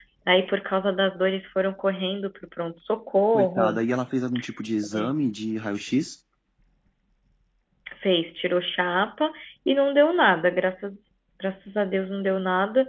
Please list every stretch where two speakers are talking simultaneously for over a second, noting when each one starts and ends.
none

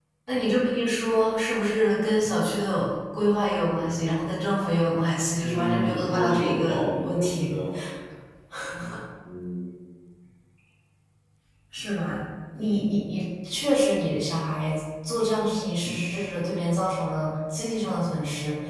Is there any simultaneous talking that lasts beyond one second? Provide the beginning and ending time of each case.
5.4-7.5

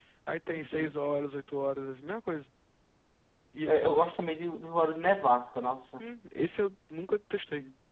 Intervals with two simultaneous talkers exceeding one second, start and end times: none

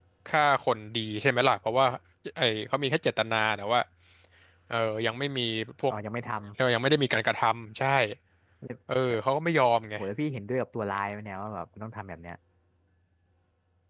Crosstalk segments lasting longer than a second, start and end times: none

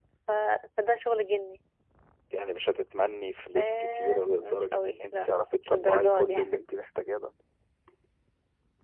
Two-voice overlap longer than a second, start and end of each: 3.6-6.6

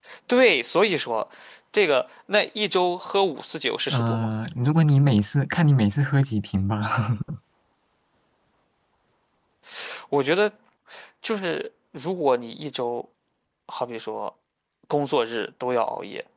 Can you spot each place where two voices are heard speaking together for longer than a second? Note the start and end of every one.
none

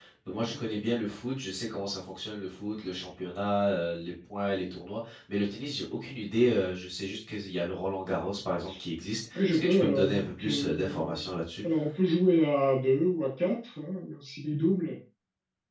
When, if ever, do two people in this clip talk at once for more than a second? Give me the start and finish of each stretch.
9.3-11.2

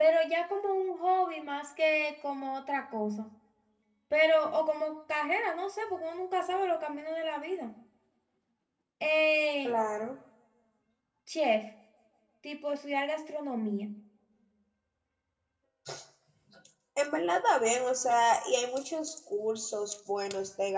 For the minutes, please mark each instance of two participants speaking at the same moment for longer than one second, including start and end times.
none

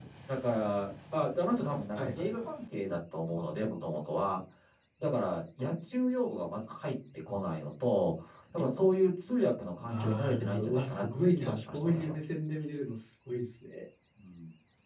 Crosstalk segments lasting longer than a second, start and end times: 9.9-12.1

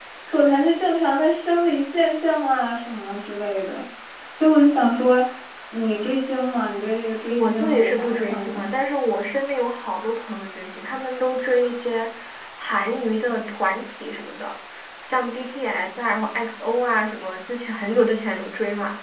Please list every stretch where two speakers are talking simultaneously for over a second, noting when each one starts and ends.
7.3-8.7

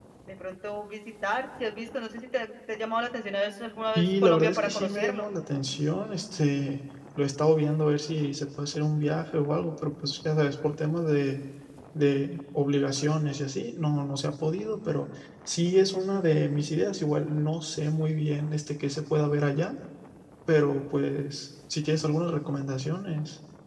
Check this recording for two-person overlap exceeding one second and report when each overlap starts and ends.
4.0-5.3

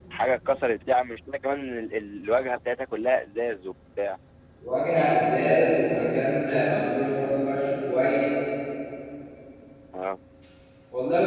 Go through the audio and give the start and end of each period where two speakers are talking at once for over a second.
none

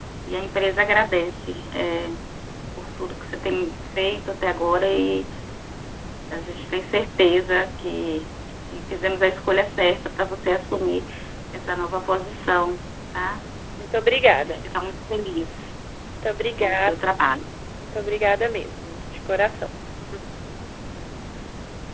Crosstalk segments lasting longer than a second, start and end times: none

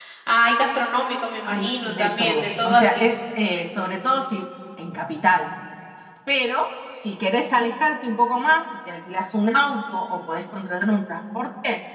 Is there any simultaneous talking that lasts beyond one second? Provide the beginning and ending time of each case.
1.4-3.1

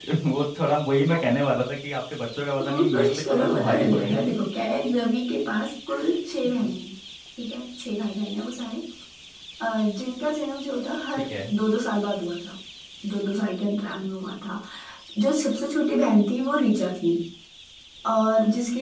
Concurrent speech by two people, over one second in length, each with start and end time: 2.7-4.2

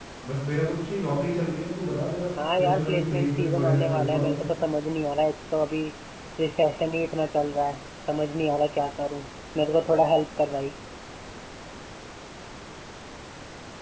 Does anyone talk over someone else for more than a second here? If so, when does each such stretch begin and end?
2.6-4.5

